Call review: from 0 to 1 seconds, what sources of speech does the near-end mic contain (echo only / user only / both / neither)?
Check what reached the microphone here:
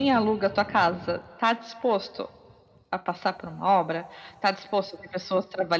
echo only